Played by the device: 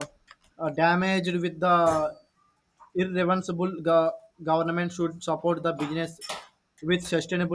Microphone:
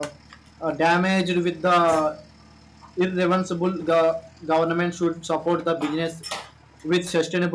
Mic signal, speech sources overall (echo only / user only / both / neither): echo only